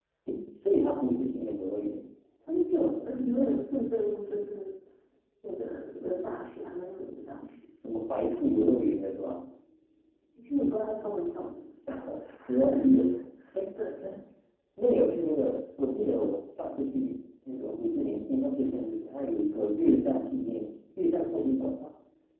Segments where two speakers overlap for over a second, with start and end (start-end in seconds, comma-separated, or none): none